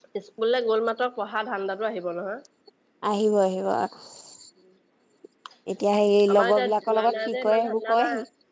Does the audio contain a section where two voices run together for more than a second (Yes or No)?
Yes